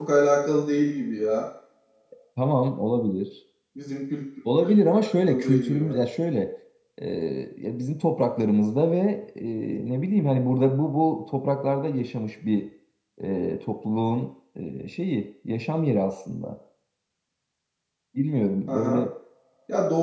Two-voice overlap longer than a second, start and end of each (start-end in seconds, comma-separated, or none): 4.6-5.9